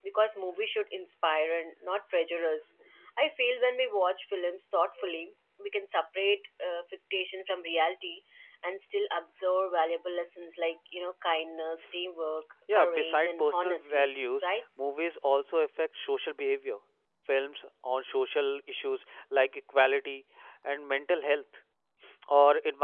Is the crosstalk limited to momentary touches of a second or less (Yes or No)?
No